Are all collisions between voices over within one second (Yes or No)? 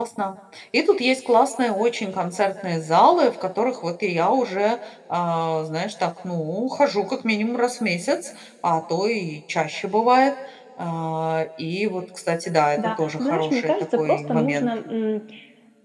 No